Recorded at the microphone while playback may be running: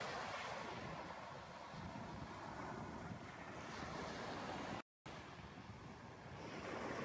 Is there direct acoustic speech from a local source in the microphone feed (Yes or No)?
No